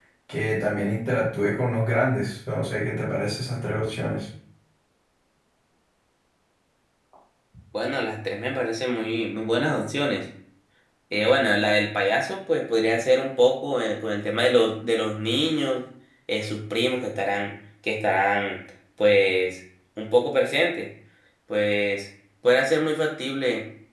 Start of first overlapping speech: none

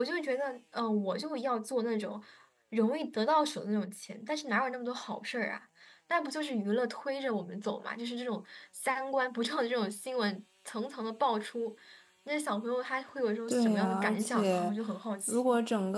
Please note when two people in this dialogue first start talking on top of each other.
13.5 s

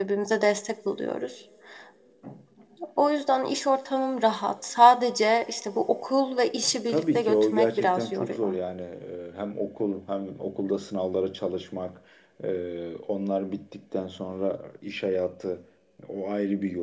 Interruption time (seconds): 6.9 s

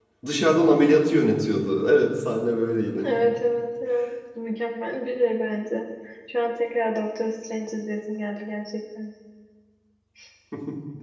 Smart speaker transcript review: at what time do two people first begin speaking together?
none

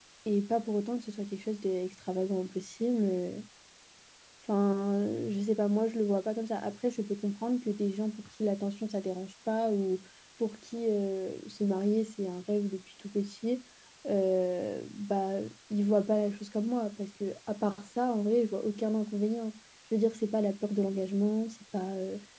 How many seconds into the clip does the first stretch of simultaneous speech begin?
none

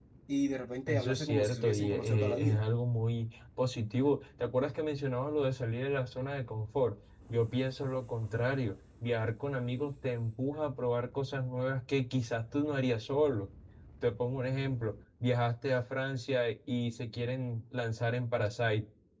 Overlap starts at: 0.9 s

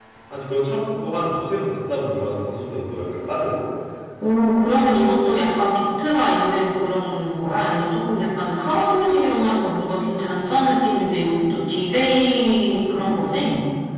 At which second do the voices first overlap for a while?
none

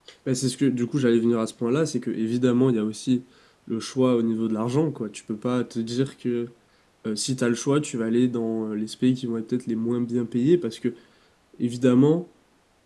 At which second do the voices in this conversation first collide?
none

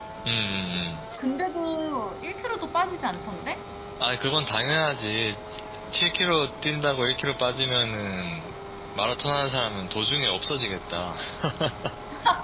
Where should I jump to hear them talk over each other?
none

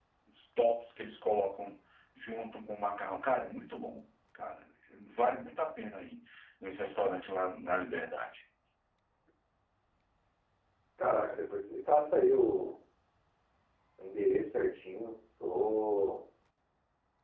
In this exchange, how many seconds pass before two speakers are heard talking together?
none

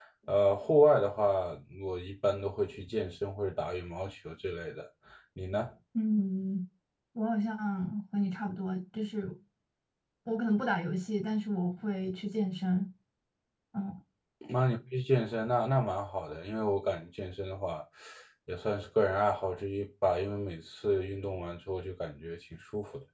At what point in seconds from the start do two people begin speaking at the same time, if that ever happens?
none

